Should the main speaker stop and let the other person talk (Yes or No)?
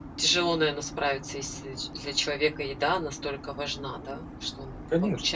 Yes